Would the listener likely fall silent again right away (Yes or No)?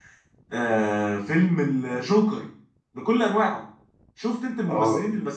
Yes